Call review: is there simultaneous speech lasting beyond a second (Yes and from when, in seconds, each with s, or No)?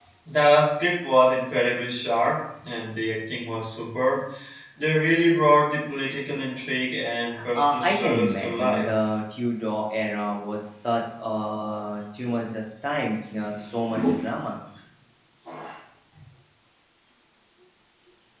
Yes, from 7.6 s